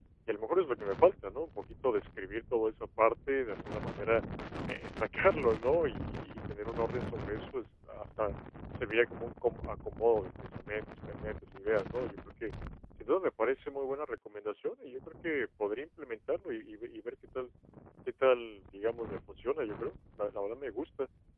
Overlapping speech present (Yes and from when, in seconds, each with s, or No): No